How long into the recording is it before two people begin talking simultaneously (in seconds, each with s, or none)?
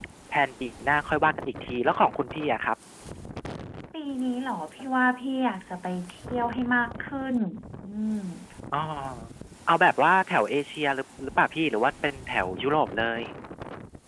none